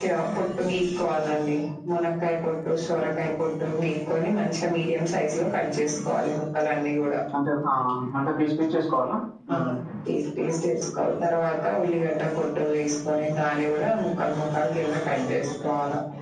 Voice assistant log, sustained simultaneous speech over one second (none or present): none